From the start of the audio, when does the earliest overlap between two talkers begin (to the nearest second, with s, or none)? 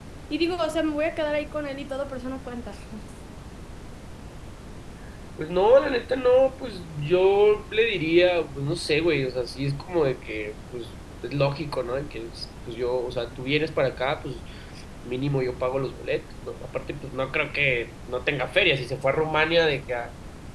none